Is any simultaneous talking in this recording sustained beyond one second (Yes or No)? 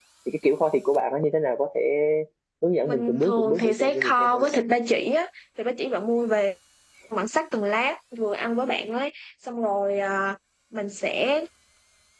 Yes